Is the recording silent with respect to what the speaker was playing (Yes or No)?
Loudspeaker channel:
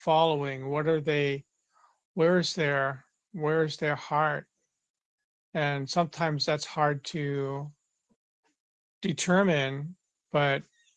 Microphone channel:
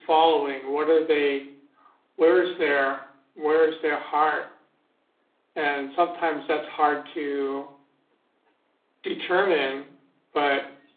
No